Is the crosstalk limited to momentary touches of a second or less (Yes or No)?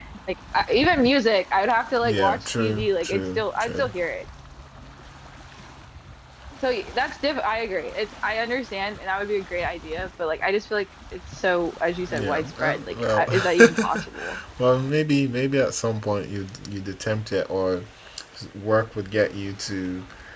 No